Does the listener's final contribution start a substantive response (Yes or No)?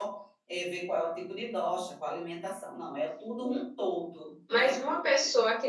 Yes